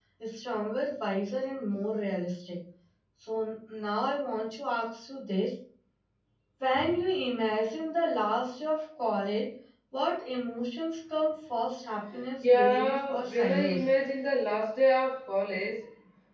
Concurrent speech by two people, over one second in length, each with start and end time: 12.4-13.8

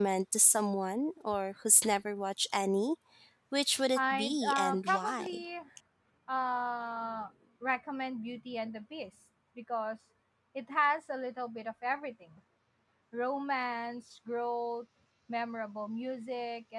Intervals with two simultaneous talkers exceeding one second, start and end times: 4.0-5.3

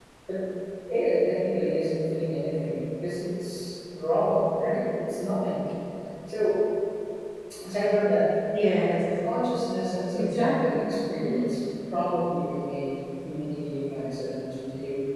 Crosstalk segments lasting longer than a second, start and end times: 10.2-11.5

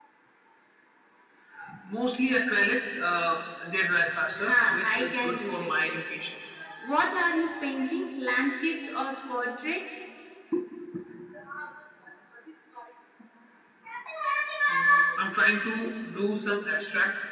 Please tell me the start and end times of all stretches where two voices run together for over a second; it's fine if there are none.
4.4-5.7

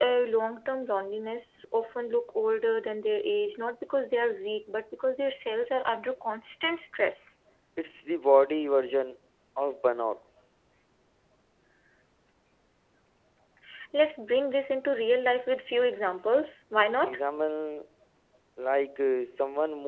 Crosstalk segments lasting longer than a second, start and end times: none

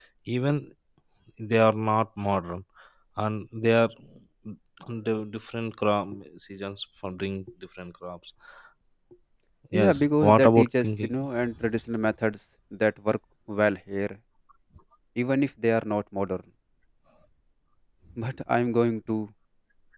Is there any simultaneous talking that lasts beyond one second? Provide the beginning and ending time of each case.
9.7-11.1

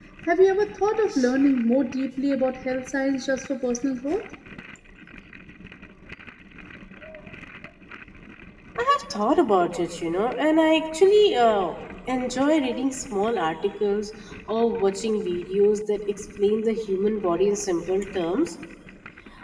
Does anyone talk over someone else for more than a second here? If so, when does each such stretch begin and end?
none

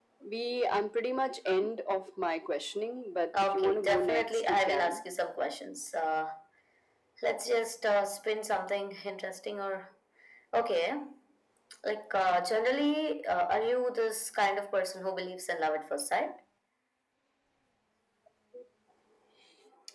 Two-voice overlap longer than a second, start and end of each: 3.4-5.0

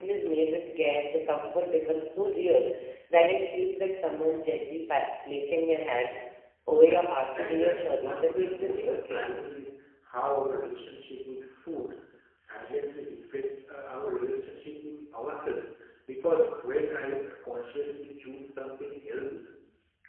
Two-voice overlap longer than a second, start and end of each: 7.4-9.2

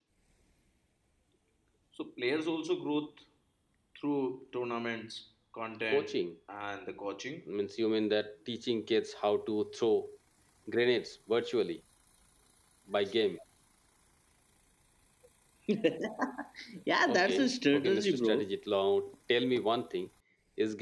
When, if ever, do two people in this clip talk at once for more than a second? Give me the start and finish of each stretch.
17.1-18.5

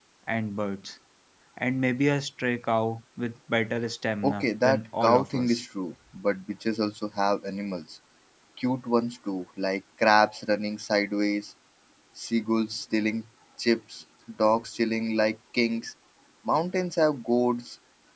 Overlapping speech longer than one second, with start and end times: 4.2-5.6

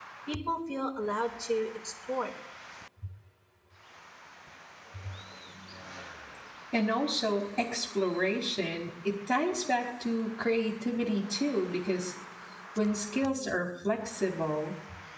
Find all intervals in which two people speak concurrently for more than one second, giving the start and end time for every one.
none

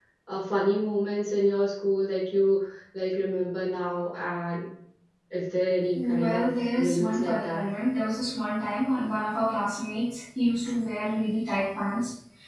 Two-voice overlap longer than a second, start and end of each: 6.0-7.7

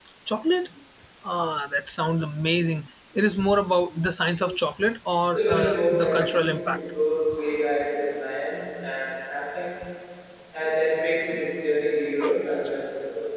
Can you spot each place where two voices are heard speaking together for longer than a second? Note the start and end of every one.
5.3-6.8

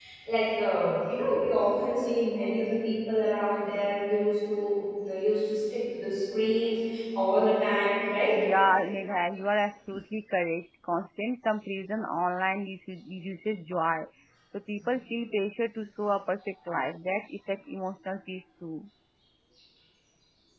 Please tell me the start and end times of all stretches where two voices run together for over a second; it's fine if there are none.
none

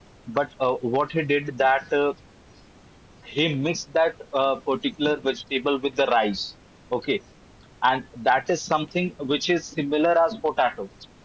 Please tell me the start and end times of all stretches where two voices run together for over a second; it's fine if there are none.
none

